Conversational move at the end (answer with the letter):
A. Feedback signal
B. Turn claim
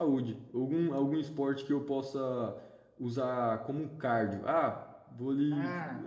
A